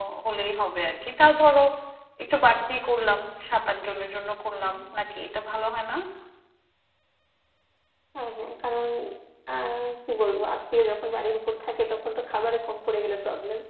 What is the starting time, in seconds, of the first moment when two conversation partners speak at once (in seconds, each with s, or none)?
none